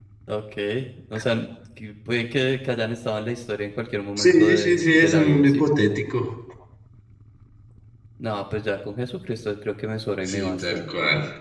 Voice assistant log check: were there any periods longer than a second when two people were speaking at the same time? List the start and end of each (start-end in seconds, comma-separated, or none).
4.2-5.6